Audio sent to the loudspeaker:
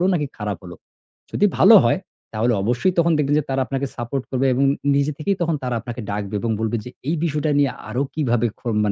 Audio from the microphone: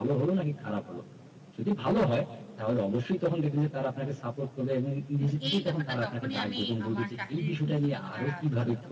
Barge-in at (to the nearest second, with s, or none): 5 s